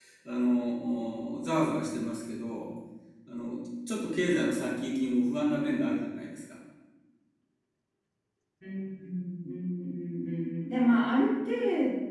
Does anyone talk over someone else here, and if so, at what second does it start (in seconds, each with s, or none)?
none